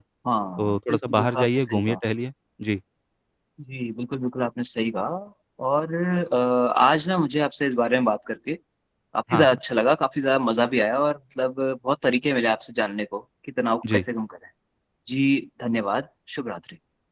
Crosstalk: present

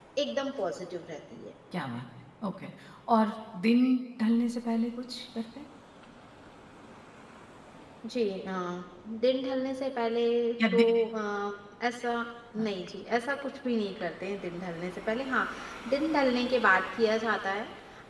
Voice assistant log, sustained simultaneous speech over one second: none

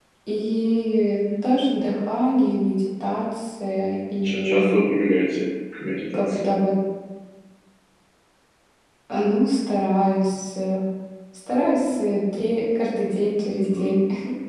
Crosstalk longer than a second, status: none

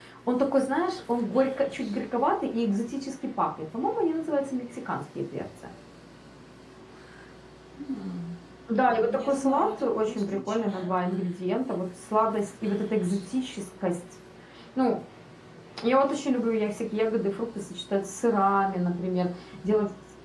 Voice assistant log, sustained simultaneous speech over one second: present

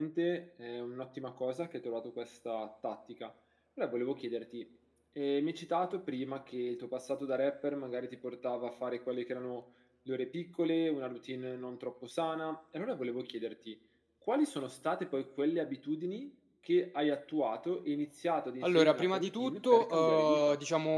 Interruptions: present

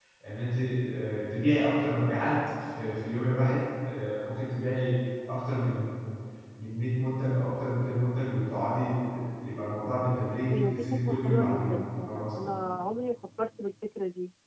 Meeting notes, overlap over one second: present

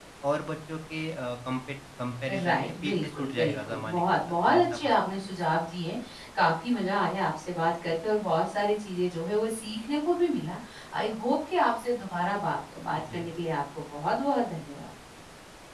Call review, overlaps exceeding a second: present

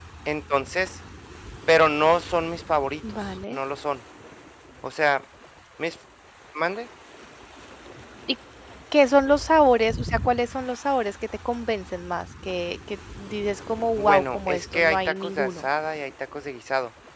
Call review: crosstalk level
present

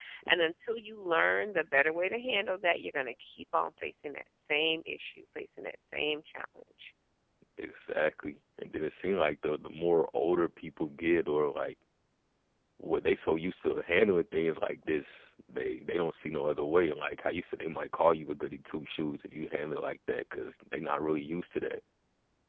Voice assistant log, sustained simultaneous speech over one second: none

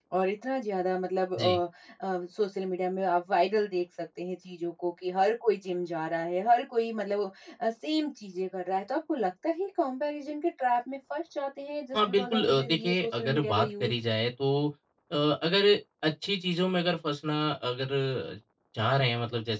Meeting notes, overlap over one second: present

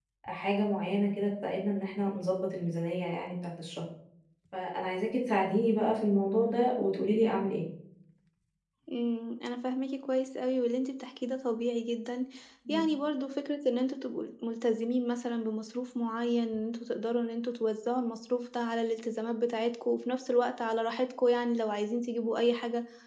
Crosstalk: none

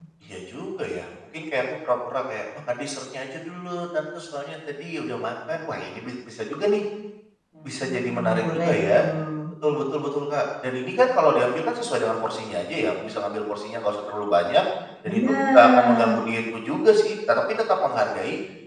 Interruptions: present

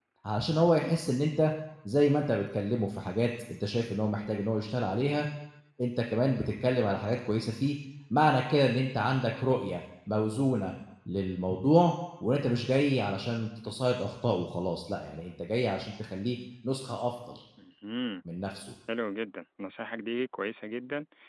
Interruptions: none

